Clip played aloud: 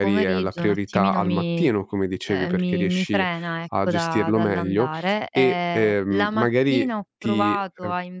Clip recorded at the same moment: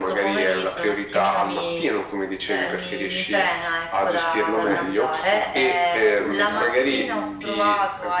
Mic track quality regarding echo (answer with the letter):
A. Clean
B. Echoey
B